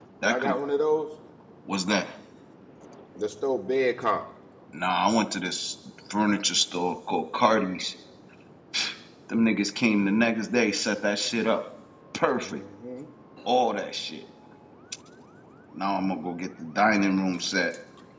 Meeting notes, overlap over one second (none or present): none